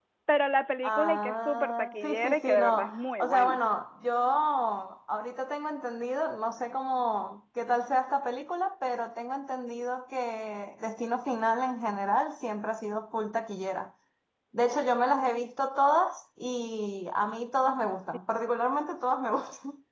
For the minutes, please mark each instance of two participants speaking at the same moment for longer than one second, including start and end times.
0.8-3.6

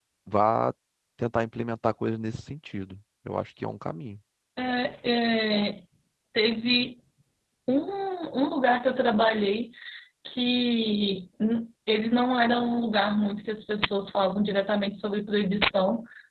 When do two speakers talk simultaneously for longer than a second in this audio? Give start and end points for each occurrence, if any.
none

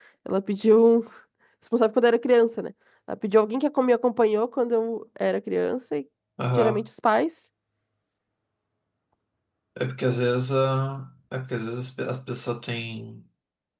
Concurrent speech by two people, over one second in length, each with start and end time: none

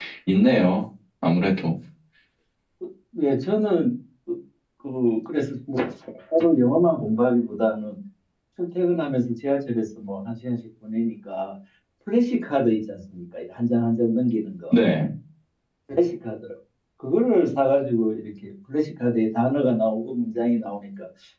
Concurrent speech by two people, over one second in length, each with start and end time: none

